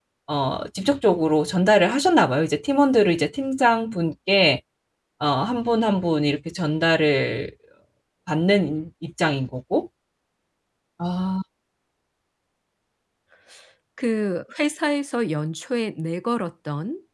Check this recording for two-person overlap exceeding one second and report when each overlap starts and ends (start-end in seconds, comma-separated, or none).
none